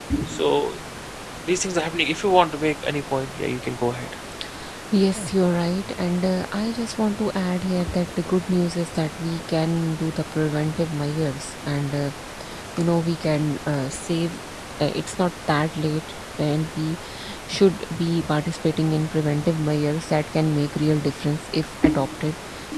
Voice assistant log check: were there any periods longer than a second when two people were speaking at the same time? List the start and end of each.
none

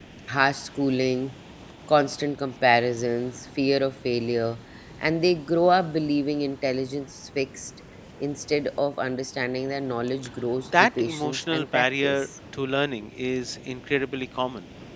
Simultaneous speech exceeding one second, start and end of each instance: 10.7-12.3

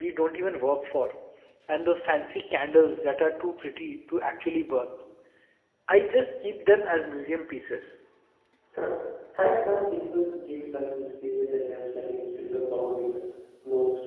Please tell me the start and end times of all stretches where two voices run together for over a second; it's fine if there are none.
none

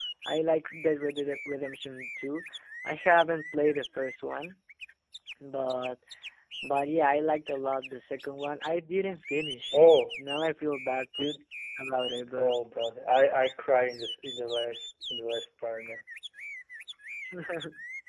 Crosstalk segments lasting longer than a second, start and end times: none

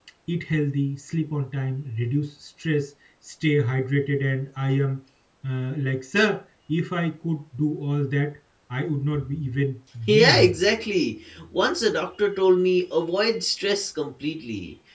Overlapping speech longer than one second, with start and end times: none

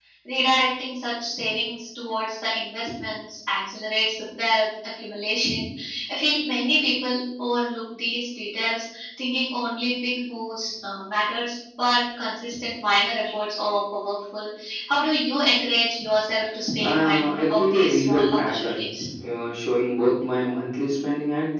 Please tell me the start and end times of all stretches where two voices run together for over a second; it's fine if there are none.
16.8-18.7

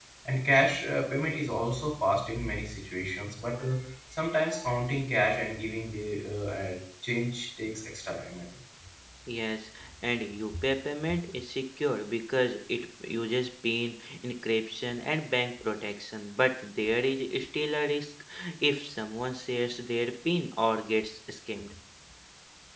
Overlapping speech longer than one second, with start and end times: none

